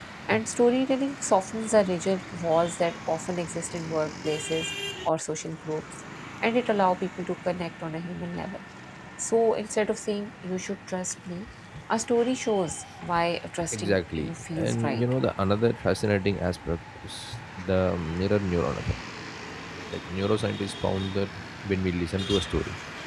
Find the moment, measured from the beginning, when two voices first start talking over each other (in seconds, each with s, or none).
13.7 s